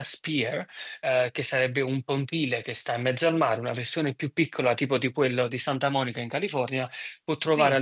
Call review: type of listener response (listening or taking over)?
listening